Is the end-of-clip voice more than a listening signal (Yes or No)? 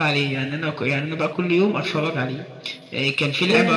No